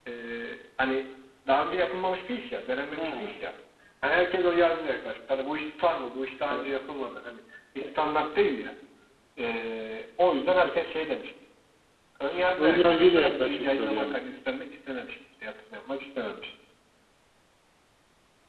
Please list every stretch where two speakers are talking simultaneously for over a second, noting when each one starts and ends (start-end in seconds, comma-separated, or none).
12.6-14.1